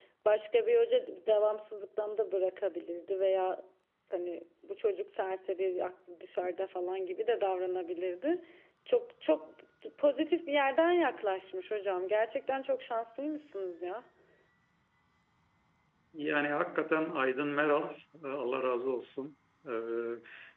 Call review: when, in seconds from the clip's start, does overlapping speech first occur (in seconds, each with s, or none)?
none